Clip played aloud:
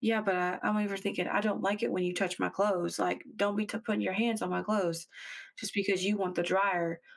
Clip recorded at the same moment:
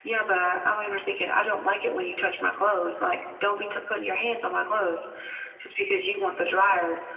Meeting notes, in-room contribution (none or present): none